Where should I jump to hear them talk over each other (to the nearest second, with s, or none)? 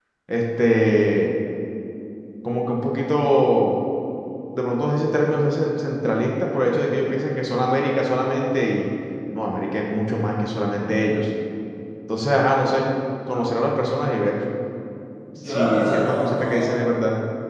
15 s